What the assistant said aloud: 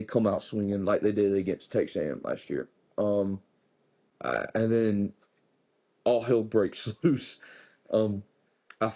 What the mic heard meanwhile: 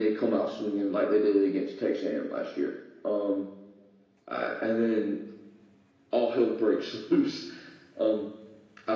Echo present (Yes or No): Yes